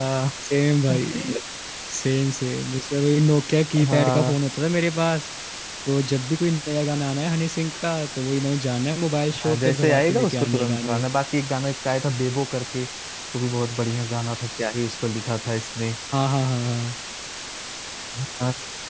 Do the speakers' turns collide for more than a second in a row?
Yes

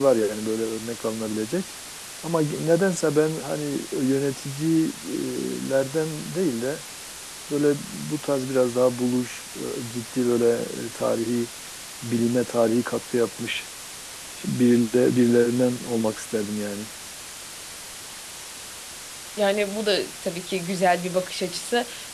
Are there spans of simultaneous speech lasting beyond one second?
No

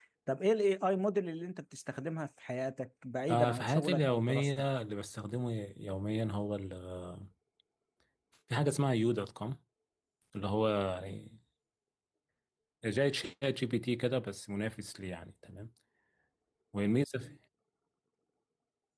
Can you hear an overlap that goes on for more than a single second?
Yes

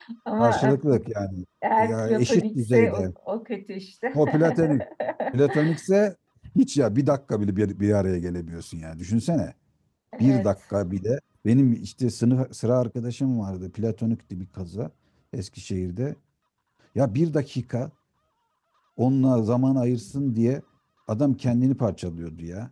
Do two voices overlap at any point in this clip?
Yes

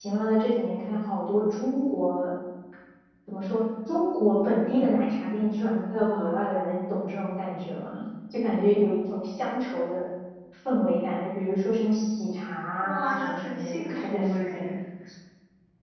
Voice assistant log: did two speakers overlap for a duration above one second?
Yes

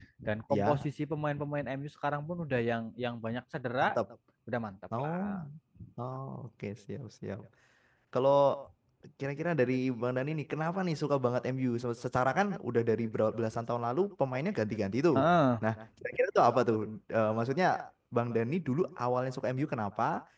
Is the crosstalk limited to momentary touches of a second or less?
Yes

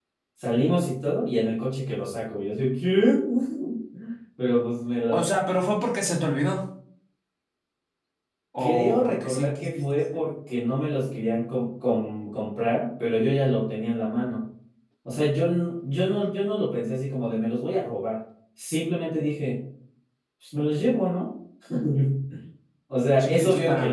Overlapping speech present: Yes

